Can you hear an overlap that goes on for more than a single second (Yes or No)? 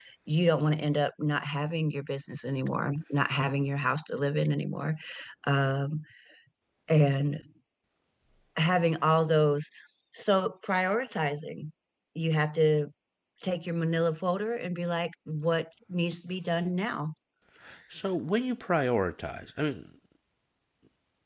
No